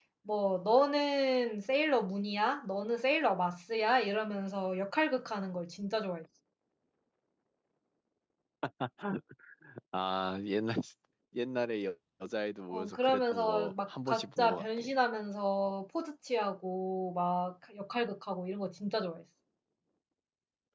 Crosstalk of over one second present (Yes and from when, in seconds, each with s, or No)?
Yes, from 12.7 s